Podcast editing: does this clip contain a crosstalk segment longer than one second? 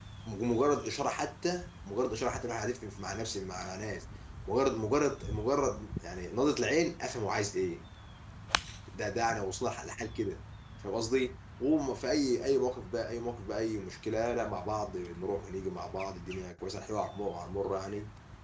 No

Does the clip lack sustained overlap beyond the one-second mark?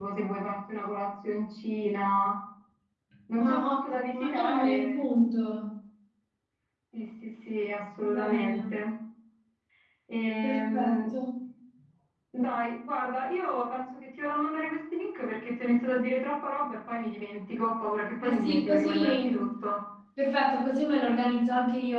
No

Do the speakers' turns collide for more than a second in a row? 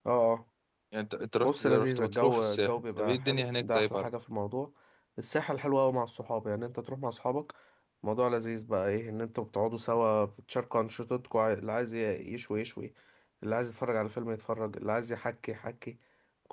Yes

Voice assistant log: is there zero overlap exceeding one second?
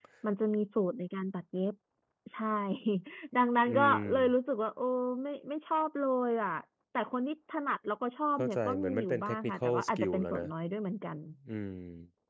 No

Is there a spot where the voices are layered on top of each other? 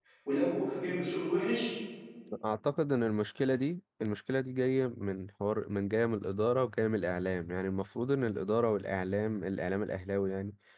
No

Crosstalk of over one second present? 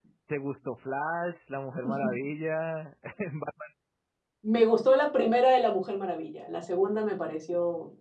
No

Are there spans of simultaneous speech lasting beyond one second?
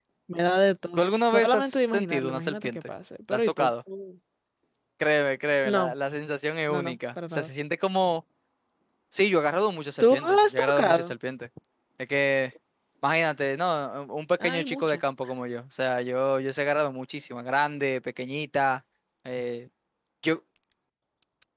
Yes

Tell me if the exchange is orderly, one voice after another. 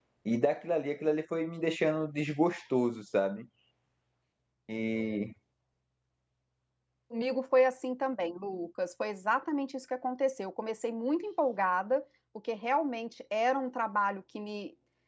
Yes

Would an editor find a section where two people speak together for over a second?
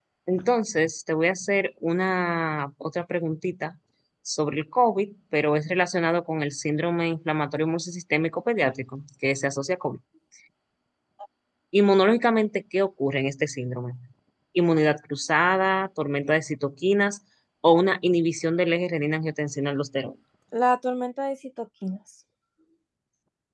No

